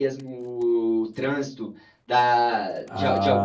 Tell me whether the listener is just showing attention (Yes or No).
Yes